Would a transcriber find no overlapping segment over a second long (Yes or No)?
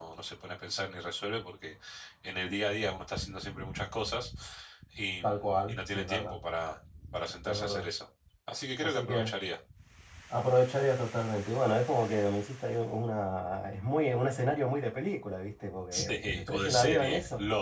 No